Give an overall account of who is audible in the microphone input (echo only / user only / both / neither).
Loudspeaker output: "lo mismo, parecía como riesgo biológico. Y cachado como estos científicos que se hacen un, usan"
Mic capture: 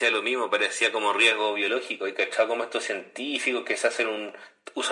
echo only